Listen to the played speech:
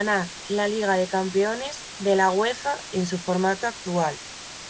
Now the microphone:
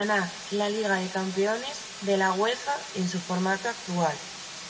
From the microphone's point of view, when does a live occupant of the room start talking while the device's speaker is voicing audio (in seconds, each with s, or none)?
none